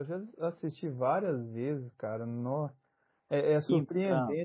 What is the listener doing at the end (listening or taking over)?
listening